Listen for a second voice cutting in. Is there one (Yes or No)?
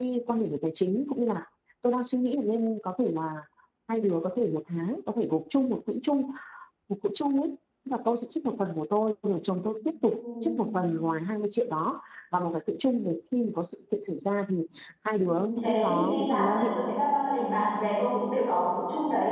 Yes